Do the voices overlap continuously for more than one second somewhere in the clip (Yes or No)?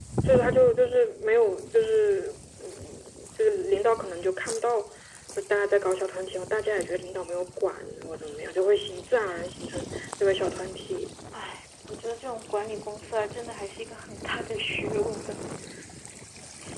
No